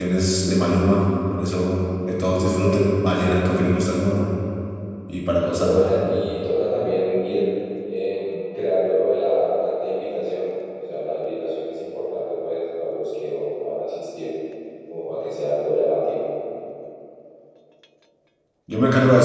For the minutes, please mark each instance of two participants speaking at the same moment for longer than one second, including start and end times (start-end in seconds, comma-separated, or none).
none